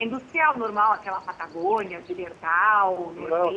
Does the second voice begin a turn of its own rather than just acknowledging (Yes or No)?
Yes